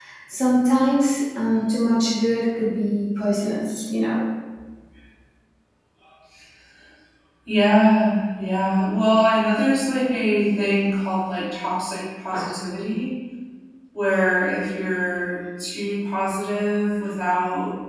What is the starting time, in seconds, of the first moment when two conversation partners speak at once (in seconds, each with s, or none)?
none